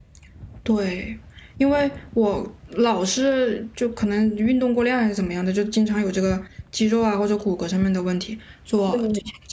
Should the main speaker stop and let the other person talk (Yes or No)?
No